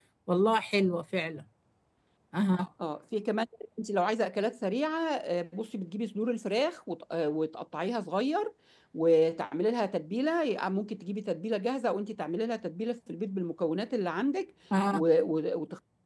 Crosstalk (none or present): none